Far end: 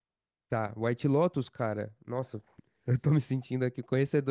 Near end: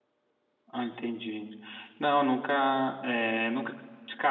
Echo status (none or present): none